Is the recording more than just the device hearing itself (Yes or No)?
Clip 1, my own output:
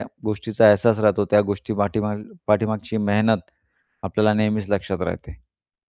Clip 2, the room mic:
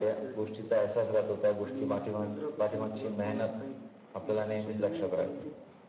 Yes